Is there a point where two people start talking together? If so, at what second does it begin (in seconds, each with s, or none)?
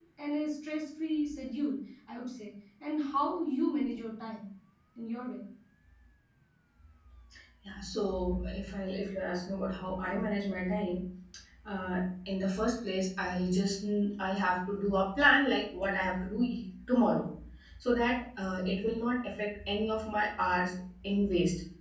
none